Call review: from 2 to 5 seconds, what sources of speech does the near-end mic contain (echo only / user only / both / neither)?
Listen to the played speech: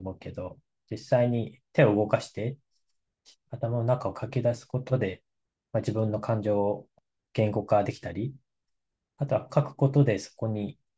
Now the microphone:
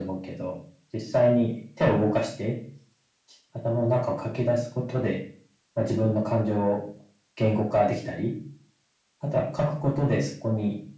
echo only